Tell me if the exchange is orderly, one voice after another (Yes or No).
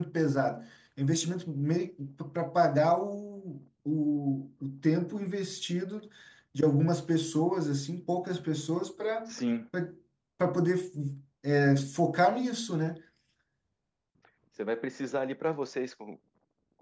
Yes